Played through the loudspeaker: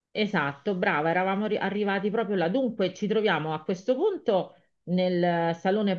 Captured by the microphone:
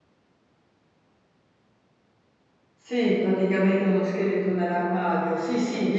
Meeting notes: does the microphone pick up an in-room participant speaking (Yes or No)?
Yes